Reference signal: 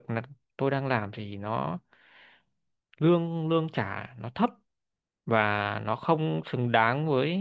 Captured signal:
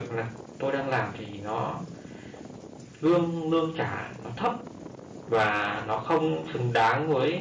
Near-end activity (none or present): none